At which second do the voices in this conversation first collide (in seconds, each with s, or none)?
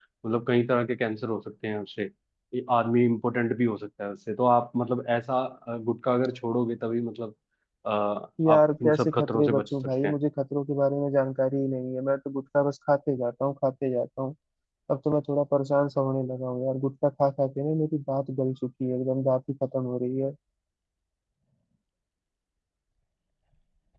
8.5 s